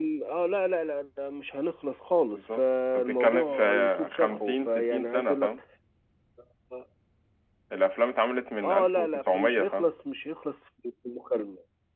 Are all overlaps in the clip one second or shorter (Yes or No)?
No